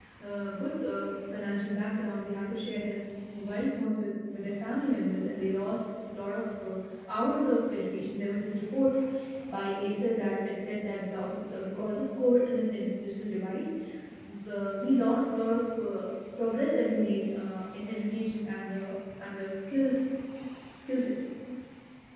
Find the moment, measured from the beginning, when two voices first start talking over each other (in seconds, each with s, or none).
none